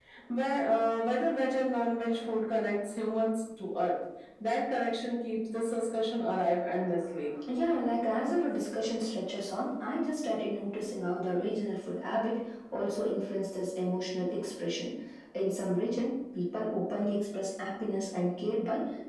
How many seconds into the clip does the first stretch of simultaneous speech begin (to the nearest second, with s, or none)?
none